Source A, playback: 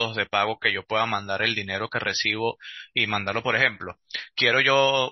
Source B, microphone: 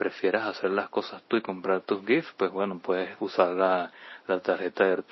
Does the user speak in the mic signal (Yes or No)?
Yes